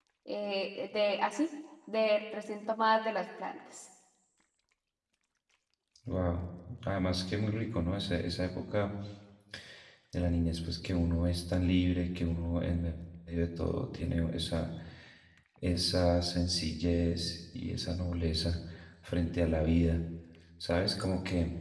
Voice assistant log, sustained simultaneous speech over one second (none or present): none